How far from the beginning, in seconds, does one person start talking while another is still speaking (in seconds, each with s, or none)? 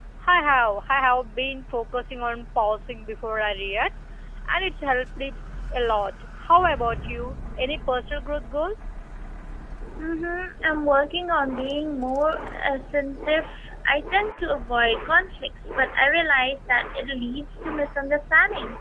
none